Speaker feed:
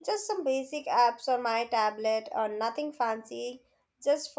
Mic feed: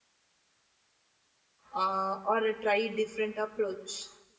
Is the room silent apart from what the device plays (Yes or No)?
No